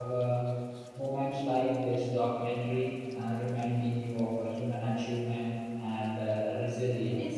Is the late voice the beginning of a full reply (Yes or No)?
Yes